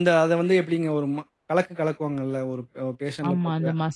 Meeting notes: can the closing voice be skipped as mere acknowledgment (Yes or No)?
No